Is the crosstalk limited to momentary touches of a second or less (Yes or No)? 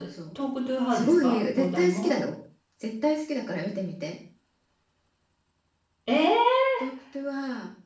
No